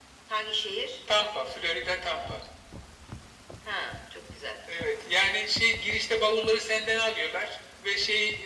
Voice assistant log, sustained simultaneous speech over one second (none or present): none